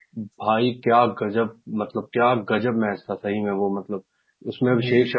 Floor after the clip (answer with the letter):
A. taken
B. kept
B